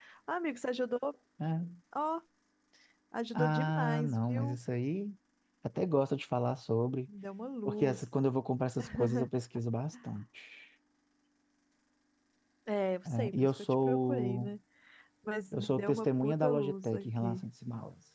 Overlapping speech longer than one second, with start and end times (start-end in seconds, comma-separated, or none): 3.4-4.6, 13.3-14.5, 15.5-17.4